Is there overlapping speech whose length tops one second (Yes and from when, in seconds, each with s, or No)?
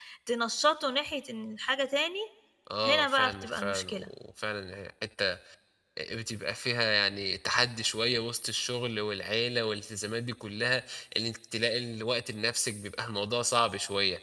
Yes, from 2.8 s